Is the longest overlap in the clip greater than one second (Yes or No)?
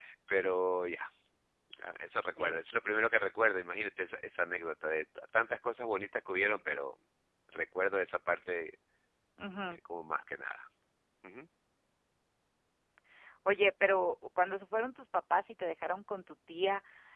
No